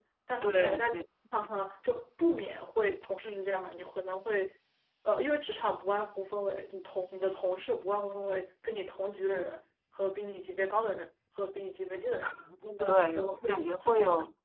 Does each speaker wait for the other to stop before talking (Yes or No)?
No